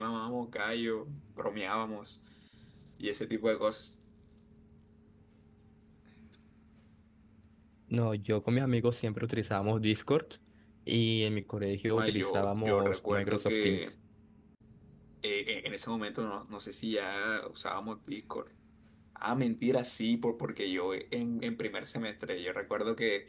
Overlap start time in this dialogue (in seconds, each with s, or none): 11.9 s